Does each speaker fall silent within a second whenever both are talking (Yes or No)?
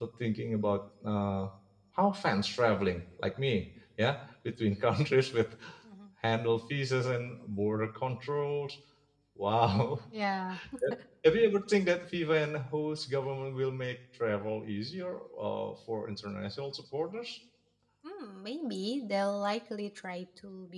Yes